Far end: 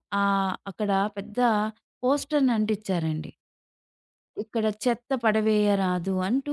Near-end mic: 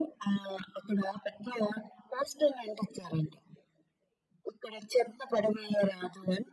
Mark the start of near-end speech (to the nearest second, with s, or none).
none